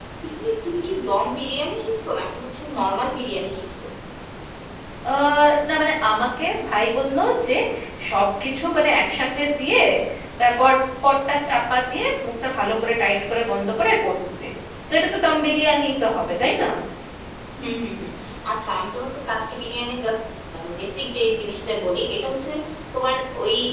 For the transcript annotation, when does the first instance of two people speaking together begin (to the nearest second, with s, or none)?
none